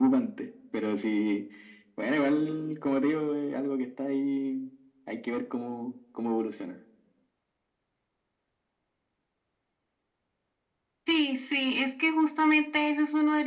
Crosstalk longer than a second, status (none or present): none